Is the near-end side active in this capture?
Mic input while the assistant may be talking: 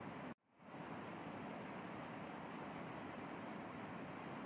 No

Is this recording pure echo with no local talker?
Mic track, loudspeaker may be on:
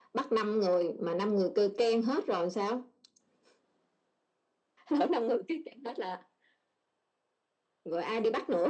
Yes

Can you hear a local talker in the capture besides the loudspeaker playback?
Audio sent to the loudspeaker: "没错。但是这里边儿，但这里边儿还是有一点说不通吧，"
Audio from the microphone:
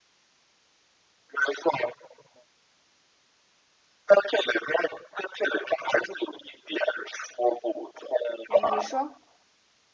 Yes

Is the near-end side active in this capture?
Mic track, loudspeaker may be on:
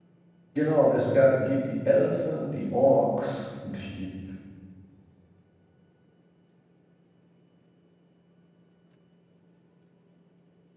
Yes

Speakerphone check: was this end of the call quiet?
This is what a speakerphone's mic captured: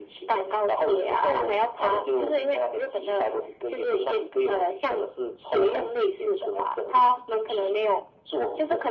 Yes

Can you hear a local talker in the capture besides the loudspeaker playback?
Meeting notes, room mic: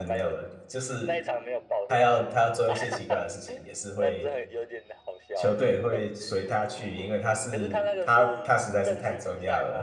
Yes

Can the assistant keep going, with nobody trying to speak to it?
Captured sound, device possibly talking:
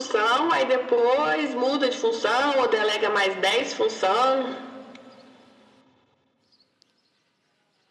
Yes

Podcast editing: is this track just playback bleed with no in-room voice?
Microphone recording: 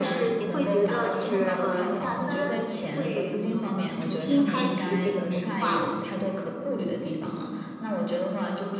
No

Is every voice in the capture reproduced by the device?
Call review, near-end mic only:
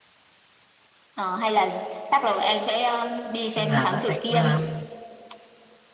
No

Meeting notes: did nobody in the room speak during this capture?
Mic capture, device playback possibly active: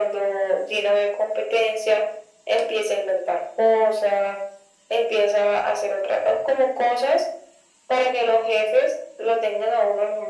Yes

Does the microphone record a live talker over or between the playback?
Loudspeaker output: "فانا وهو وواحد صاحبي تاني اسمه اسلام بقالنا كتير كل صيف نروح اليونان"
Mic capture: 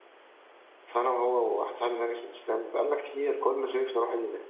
No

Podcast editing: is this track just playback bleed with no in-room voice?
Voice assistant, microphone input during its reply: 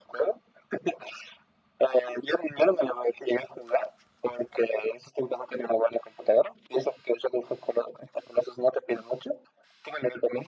Yes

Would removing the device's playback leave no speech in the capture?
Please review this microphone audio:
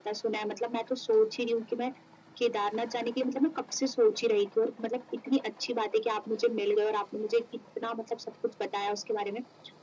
Yes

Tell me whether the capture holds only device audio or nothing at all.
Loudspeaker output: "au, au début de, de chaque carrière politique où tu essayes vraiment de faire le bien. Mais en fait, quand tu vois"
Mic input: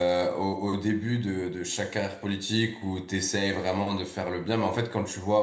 Yes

